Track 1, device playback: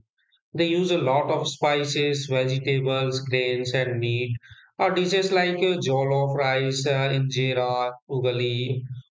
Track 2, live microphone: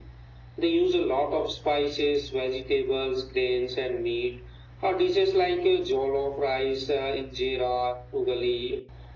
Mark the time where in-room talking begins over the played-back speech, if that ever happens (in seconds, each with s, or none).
none